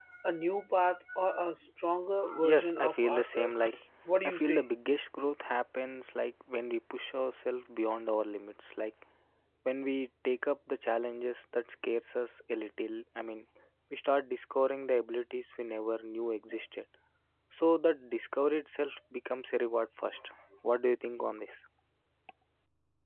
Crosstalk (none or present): present